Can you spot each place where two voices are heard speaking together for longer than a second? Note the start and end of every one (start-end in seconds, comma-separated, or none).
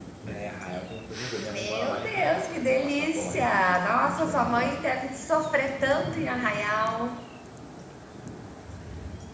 1.4-4.8